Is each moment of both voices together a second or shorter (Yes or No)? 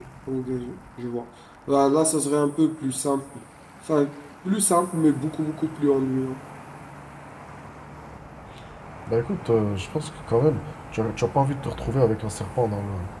Yes